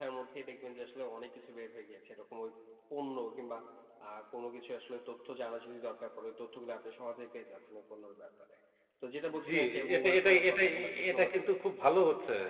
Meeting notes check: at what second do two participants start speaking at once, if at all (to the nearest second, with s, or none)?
9 s